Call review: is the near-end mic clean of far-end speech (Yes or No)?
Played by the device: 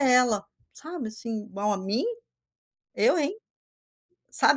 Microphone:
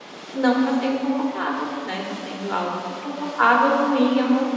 Yes